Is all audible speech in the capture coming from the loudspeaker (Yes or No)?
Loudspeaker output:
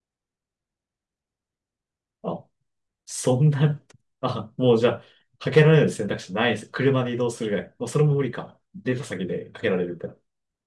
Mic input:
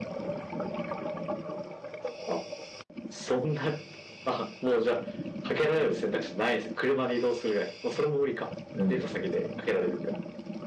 No